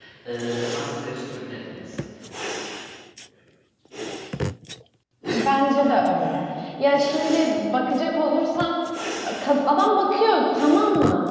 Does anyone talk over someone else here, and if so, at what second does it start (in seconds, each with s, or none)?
none